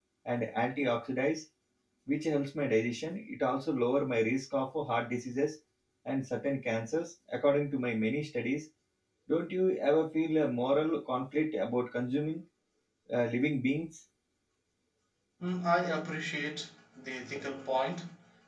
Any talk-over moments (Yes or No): No